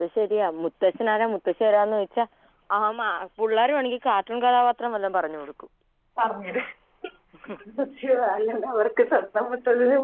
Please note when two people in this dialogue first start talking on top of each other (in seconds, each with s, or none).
none